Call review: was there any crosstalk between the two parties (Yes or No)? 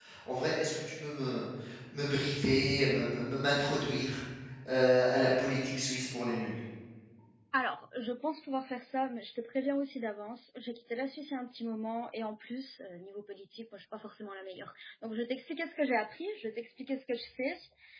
No